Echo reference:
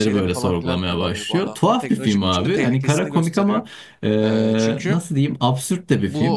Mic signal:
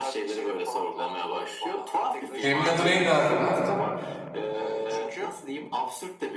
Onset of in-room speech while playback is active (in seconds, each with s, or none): 2.4 s